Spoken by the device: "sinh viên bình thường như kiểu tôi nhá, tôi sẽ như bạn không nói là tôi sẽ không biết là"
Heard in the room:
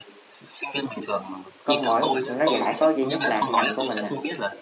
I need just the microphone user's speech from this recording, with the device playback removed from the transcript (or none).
có mỗi nó giải có duy nhất là ngành của mình à